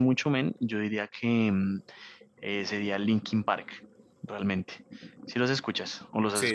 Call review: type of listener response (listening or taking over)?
taking over